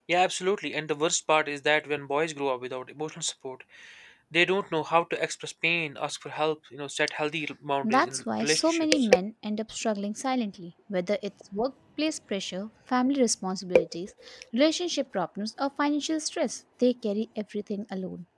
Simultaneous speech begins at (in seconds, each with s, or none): 7.8 s